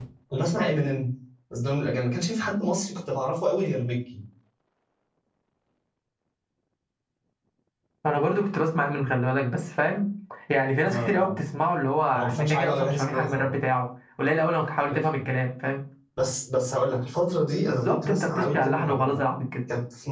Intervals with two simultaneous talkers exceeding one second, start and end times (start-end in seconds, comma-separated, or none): 12.1-13.5, 17.7-19.2